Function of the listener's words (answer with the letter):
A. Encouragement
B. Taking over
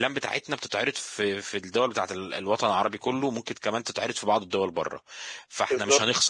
A